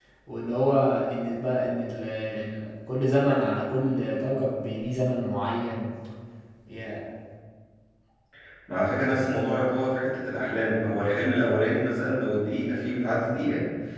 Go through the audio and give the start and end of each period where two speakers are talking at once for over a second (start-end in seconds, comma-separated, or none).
none